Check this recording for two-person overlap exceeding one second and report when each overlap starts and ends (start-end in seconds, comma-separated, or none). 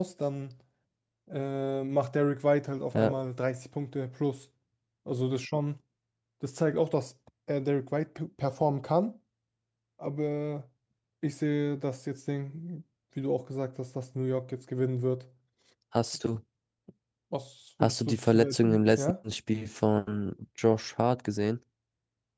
17.8-19.1